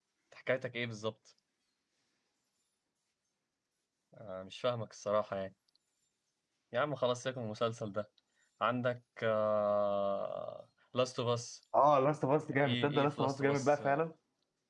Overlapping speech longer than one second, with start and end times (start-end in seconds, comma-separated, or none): 12.6-14.1